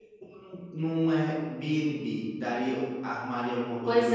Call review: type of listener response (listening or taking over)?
taking over